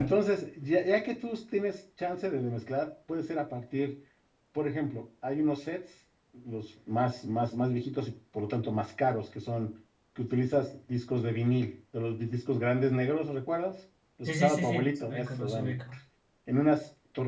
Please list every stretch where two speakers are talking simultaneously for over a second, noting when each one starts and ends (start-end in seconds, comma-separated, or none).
14.3-15.7